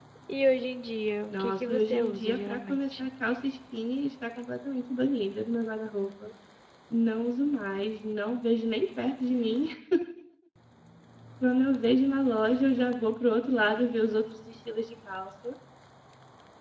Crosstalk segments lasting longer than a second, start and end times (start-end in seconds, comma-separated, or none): 1.3-3.1